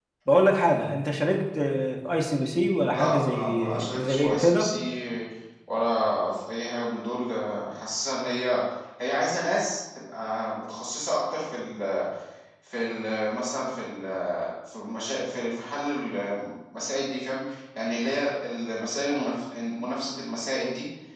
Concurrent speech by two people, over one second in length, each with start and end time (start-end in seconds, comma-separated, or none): 2.9-4.7